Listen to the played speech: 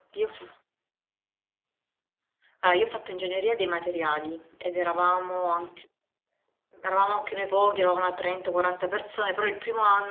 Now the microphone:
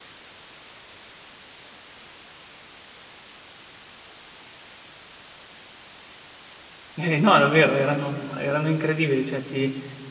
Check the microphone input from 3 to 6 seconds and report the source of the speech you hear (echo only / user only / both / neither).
neither